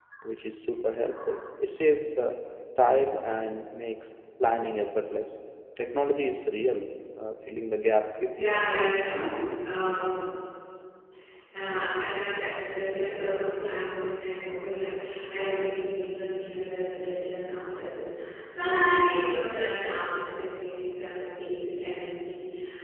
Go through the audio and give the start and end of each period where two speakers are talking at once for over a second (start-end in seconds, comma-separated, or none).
none